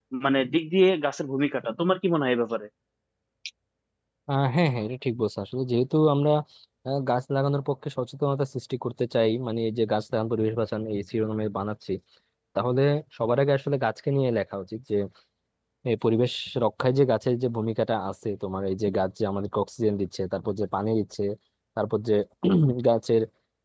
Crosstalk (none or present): none